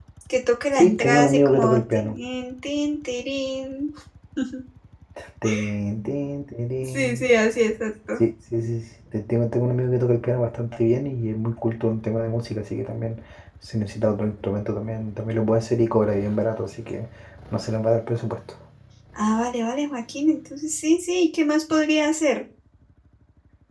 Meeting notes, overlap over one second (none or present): present